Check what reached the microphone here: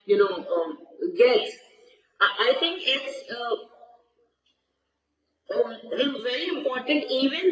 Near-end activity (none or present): none